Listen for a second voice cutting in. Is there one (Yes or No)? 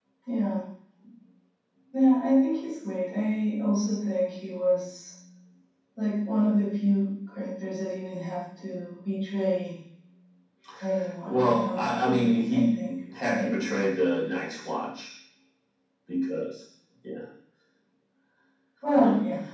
Yes